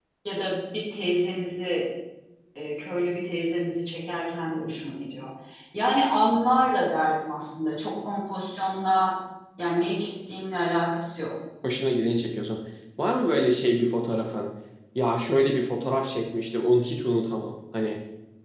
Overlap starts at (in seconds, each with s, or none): none